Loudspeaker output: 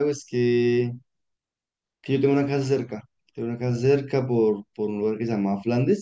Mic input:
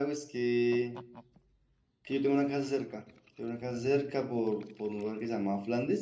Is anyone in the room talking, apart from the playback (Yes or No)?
No